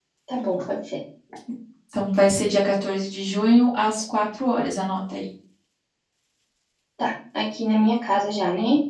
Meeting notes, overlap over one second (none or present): none